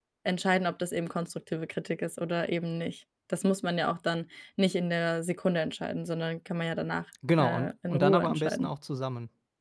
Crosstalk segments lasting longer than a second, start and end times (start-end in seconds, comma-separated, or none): 7.4-8.7